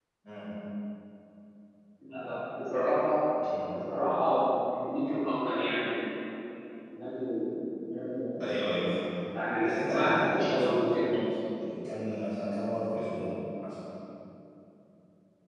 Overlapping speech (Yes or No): Yes